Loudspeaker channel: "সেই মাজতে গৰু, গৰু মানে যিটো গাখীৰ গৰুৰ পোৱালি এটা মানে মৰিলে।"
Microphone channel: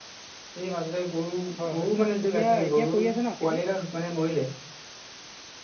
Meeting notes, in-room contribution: present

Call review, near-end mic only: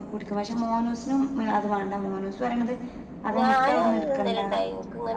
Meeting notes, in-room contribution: present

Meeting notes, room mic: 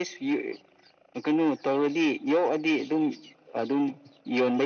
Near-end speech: none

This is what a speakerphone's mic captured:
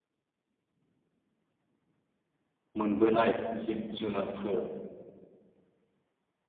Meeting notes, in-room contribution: present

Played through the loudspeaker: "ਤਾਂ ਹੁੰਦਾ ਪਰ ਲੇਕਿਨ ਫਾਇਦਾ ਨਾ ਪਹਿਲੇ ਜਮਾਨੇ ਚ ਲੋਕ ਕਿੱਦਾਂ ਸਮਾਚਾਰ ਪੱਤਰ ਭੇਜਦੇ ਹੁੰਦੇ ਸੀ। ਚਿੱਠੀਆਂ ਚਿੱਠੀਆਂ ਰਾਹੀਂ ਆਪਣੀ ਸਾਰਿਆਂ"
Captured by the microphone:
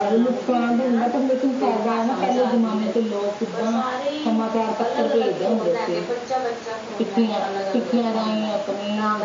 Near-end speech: present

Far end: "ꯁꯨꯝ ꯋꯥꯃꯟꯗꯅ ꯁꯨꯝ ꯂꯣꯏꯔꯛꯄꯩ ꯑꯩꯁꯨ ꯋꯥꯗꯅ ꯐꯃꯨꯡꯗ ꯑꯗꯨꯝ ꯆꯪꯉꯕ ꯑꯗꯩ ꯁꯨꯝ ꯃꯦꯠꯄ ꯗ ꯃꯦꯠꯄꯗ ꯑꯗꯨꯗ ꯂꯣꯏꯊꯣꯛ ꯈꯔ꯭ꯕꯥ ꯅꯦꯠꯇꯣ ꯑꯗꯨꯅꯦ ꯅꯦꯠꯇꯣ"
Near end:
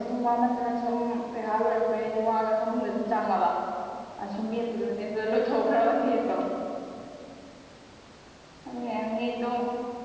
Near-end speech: none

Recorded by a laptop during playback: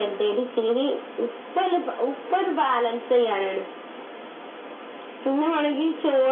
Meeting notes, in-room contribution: none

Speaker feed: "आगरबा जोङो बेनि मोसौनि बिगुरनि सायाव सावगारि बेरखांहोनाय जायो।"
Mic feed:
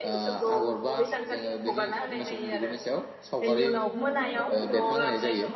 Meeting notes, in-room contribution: present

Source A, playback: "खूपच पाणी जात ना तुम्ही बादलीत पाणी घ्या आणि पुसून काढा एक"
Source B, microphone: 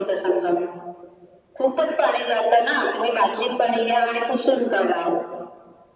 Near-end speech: none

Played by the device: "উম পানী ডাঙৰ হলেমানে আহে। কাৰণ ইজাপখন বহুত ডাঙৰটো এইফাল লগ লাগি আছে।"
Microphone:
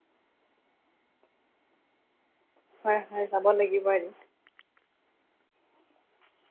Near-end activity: present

